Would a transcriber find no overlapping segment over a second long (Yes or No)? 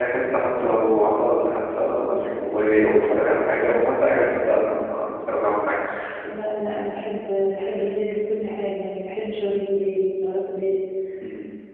Yes